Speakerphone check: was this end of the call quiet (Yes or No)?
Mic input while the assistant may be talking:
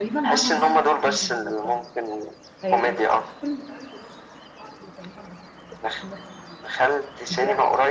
No